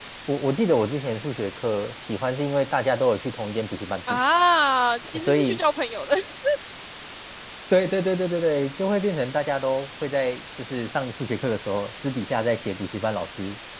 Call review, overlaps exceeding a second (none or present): none